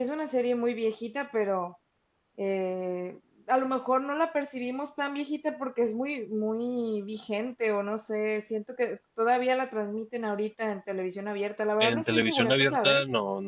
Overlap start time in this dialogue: 12 s

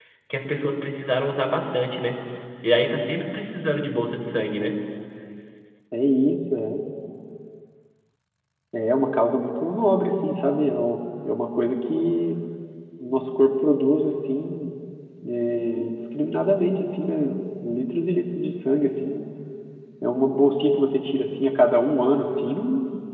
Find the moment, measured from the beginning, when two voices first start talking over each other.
none

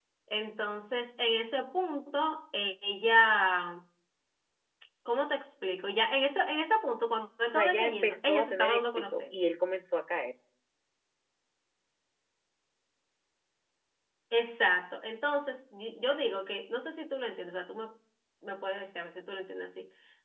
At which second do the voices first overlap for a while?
8 s

